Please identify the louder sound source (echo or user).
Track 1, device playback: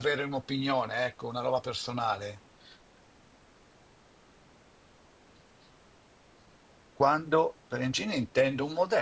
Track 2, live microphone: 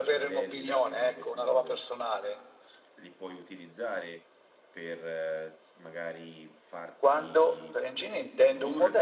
echo